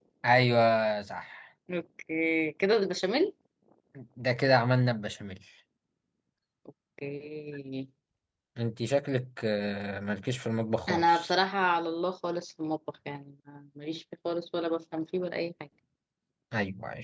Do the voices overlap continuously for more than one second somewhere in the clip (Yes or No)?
No